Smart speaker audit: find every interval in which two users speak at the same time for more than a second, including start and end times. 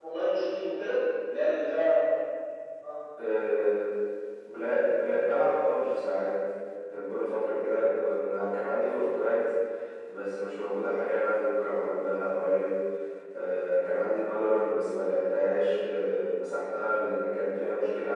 none

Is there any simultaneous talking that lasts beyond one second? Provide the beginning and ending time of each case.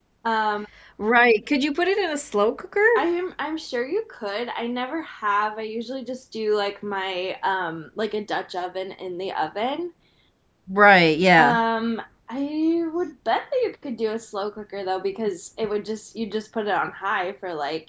none

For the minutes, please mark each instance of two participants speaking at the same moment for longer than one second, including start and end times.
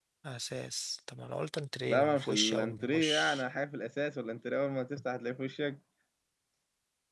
1.9-3.4

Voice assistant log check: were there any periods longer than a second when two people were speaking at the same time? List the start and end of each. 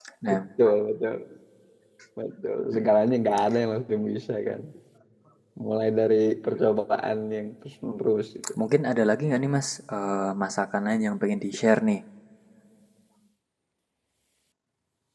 none

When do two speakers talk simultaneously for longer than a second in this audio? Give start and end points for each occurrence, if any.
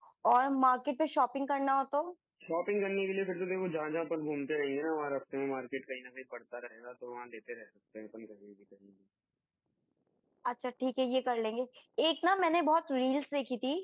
none

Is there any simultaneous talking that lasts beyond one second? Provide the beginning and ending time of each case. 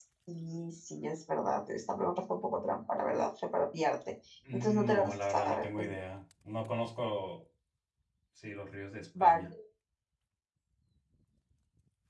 4.5-5.9

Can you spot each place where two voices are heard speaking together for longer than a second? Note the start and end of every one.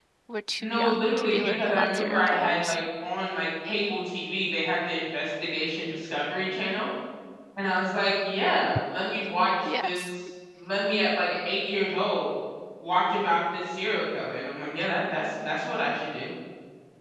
0.6-2.8

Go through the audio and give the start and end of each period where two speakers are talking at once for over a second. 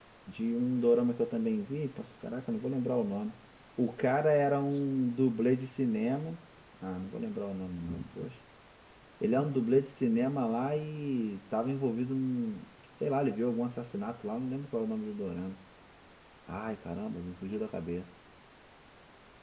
none

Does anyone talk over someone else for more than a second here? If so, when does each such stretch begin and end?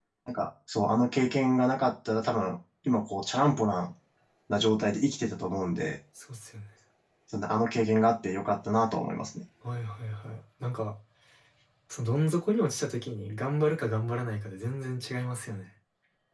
none

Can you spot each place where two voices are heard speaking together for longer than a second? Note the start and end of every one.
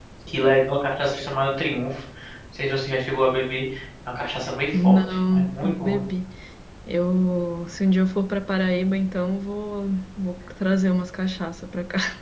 4.7-6.0

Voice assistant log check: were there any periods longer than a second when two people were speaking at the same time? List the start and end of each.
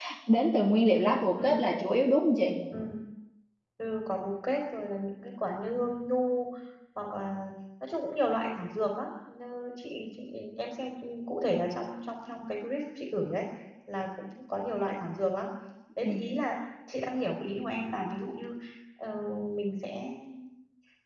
none

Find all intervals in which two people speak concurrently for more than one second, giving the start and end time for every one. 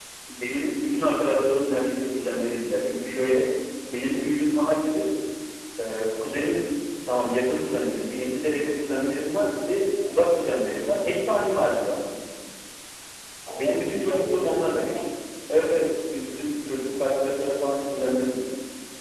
13.5-15.0

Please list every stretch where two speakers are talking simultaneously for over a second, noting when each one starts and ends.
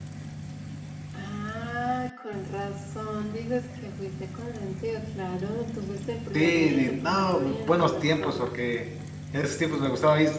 6.3-8.6

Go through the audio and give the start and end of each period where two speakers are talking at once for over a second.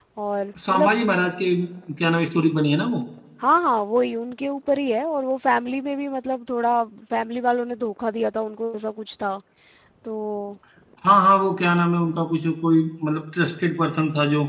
none

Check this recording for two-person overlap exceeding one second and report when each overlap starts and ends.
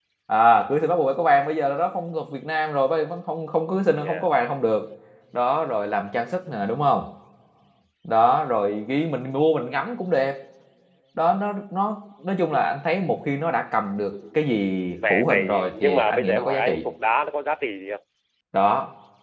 15.1-16.8

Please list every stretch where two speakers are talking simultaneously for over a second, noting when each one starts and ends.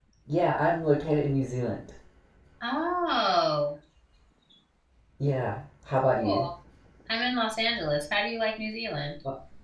none

